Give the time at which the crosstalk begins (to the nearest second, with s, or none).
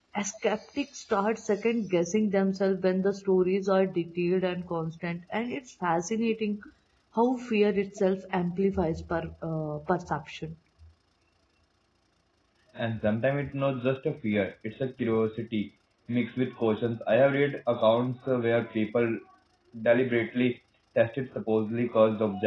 none